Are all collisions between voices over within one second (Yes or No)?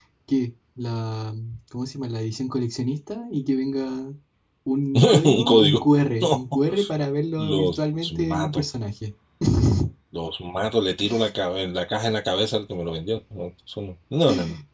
No